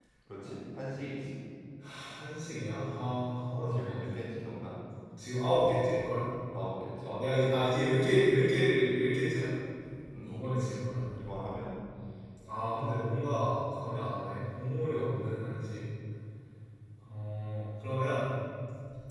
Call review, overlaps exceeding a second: none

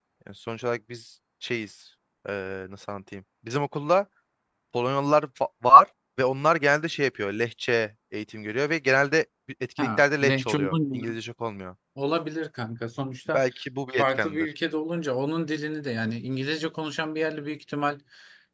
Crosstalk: present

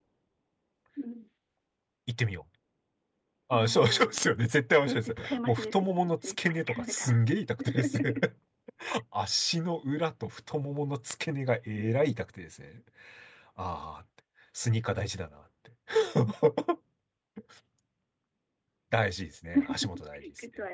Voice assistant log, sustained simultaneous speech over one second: present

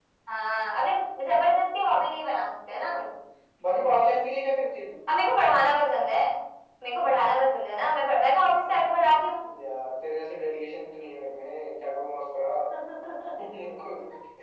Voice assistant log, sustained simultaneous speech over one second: none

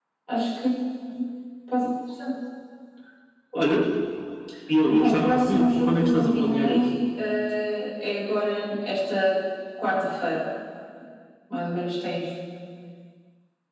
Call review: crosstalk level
present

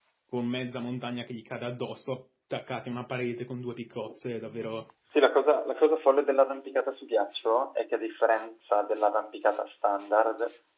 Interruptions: none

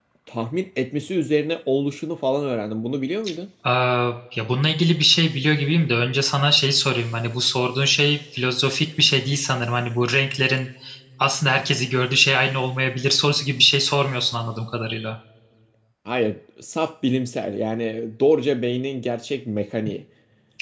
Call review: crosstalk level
none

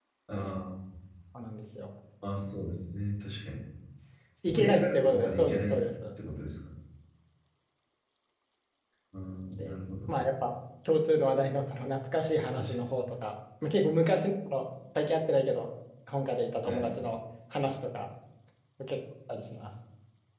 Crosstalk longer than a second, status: present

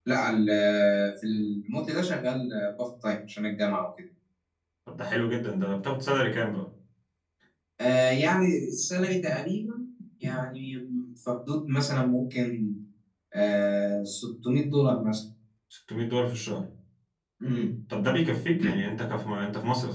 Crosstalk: none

